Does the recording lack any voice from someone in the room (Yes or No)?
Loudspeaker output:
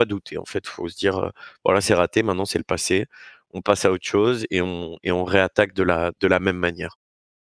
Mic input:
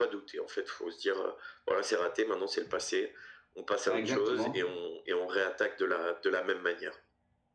No